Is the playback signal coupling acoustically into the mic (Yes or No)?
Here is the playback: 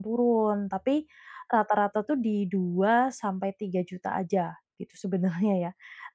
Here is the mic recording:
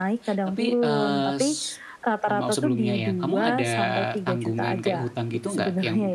Yes